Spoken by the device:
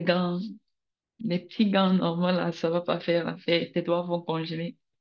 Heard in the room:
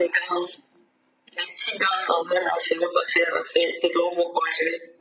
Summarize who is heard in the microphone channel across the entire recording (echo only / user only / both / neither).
echo only